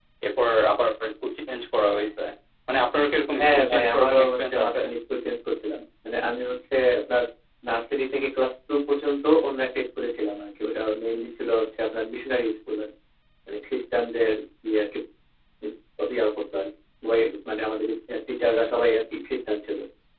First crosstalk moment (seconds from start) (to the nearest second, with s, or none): 3 s